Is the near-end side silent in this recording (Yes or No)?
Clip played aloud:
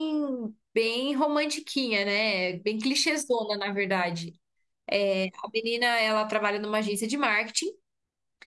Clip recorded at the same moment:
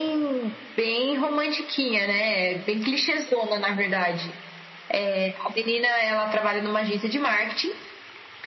Yes